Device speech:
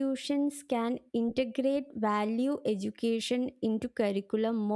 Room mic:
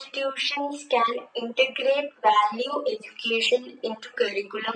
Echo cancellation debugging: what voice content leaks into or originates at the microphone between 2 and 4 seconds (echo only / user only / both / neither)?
echo only